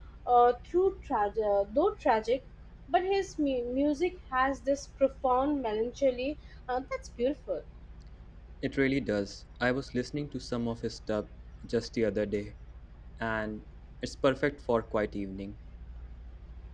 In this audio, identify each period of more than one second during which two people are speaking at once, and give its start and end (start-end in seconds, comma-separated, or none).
none